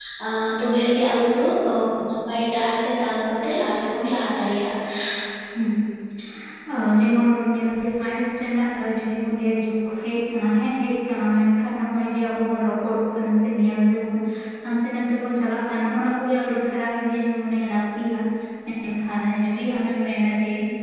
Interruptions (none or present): none